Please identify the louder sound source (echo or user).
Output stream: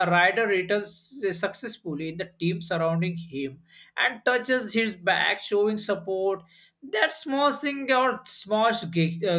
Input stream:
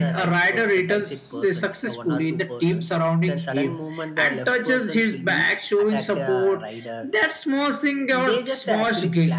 echo